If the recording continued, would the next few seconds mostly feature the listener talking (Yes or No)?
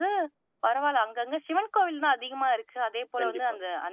No